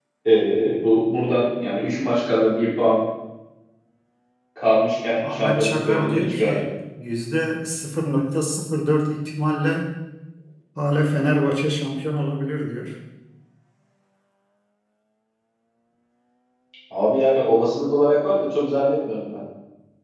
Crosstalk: present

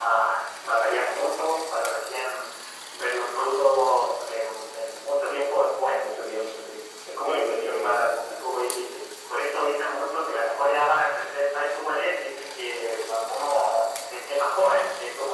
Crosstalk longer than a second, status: present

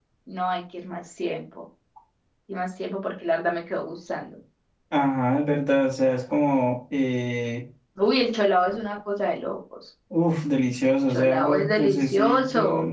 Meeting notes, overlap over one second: present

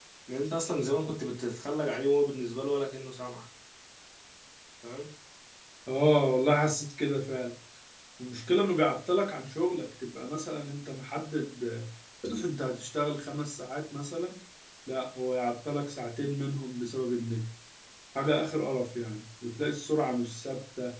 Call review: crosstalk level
none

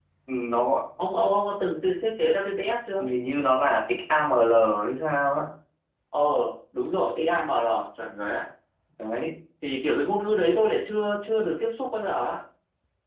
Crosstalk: none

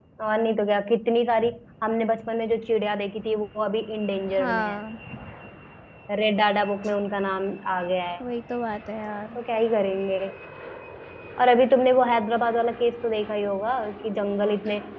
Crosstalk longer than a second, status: none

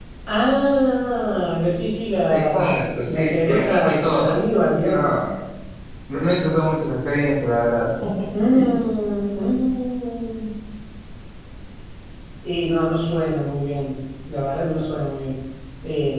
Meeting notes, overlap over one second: present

